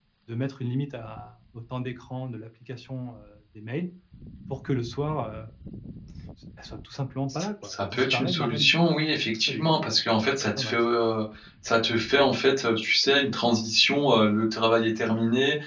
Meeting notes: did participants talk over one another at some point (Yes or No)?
Yes